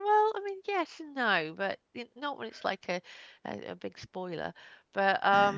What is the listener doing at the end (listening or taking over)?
taking over